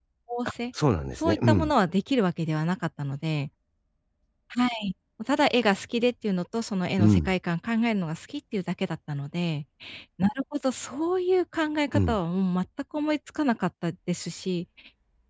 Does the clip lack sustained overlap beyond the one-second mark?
Yes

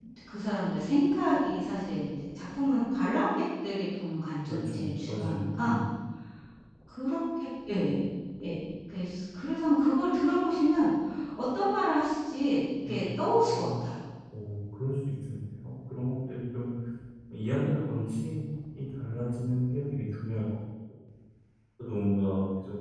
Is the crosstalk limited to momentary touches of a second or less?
No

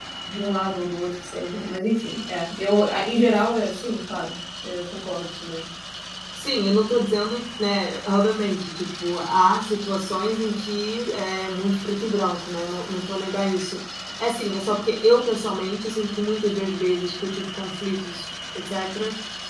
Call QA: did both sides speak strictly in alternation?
Yes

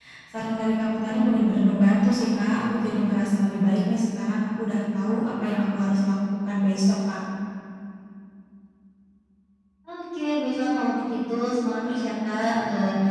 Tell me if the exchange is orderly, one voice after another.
Yes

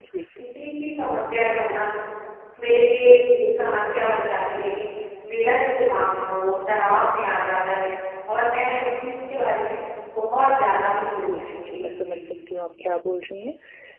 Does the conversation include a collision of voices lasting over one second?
Yes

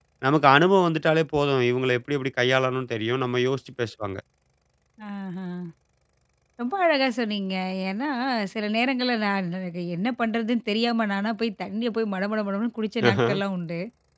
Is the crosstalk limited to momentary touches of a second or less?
Yes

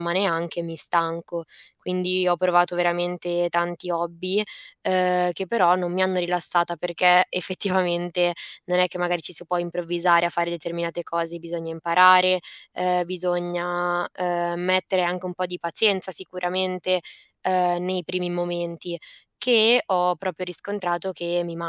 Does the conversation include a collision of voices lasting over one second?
No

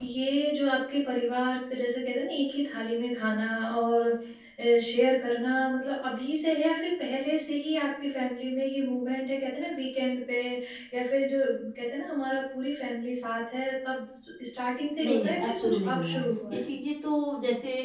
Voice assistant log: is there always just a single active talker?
No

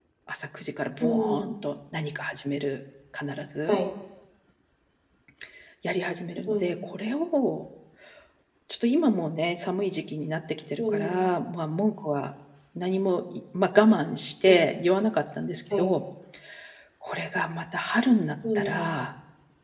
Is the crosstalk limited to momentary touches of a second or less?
Yes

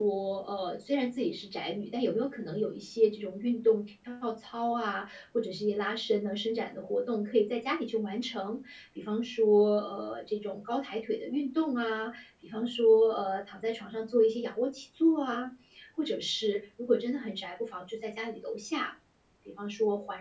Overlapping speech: No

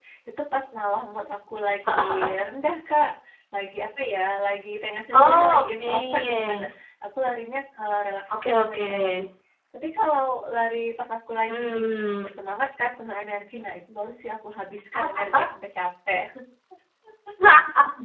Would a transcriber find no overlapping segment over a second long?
No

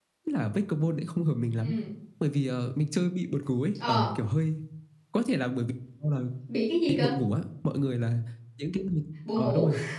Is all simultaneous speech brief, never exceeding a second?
Yes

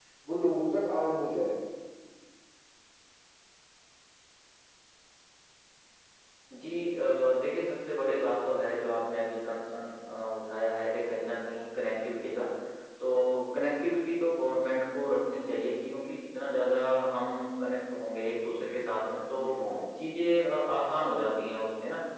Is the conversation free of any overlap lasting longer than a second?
Yes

